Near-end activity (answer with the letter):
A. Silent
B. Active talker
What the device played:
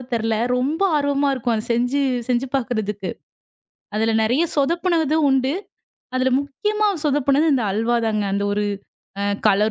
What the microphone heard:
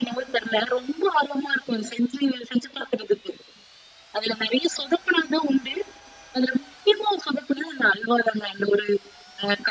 A